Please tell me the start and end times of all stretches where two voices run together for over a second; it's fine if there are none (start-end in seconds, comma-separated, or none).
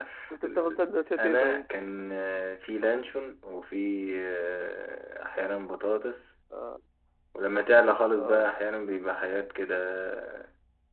none